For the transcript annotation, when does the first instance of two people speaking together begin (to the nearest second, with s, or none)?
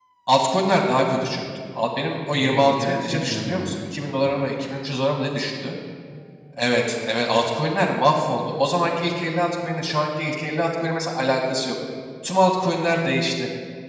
2 s